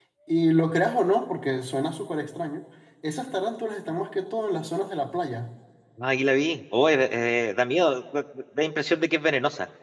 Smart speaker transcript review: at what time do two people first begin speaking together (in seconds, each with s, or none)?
none